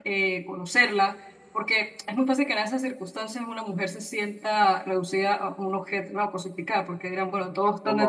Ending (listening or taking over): listening